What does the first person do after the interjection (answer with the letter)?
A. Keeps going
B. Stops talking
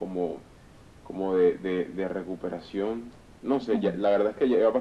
A